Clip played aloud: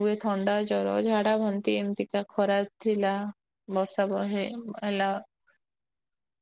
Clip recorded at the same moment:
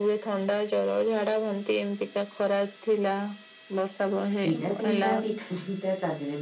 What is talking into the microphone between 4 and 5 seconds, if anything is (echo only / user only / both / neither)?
both